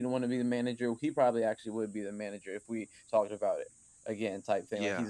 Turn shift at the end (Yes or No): No